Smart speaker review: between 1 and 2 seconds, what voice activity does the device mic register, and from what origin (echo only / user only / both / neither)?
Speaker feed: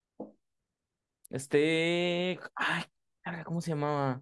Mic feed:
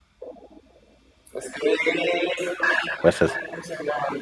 echo only